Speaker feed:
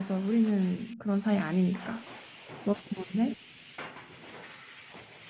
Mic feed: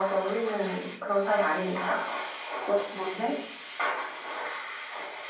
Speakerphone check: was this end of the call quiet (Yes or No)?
Yes